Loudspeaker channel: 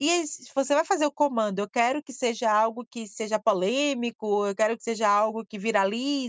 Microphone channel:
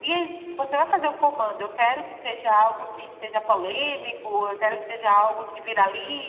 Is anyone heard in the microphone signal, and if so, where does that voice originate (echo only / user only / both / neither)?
echo only